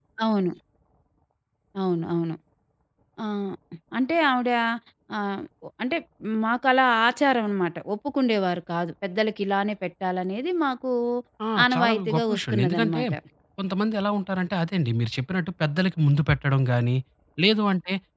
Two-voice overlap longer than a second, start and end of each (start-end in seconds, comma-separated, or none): 11.6-13.0